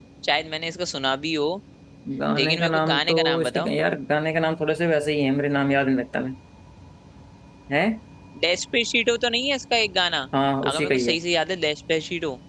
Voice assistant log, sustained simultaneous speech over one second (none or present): present